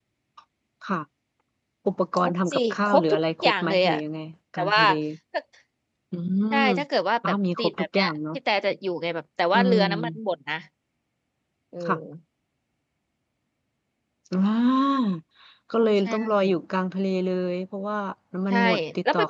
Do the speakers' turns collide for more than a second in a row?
Yes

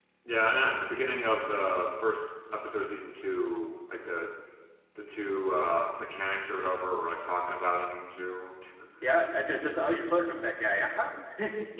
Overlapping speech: No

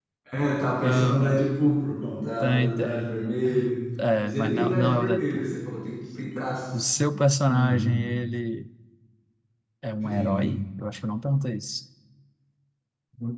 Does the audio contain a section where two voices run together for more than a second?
Yes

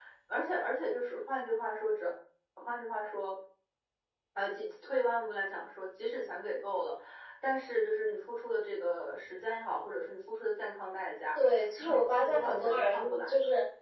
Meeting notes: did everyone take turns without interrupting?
No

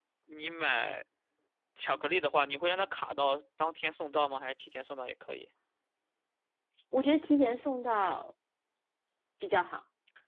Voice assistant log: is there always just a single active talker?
Yes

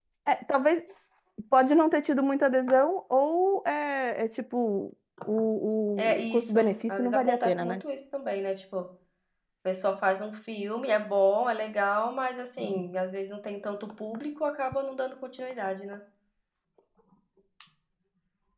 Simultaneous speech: Yes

